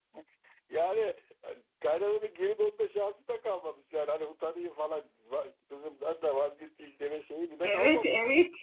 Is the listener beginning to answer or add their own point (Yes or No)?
Yes